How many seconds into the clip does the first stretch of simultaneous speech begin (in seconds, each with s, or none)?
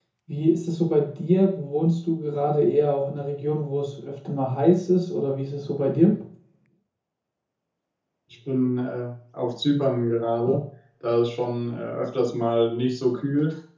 none